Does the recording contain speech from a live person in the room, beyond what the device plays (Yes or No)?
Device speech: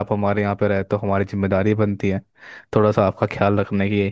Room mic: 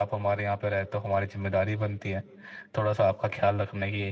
No